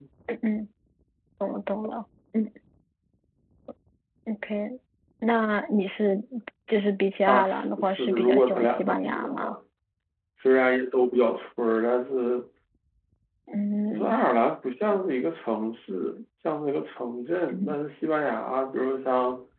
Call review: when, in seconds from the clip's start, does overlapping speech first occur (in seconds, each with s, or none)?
7.3 s